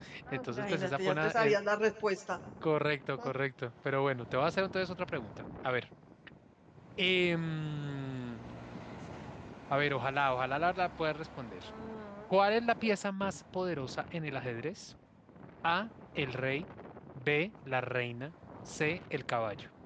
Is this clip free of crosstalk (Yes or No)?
No